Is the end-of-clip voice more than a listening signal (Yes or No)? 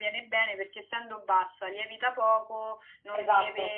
No